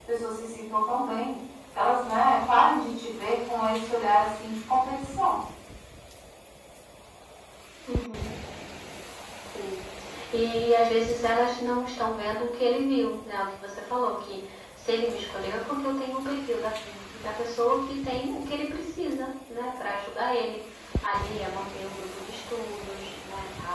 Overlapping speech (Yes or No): No